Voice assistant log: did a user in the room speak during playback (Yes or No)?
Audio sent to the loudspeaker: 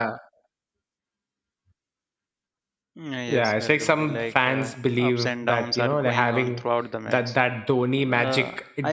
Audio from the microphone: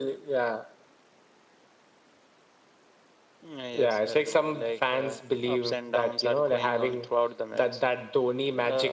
No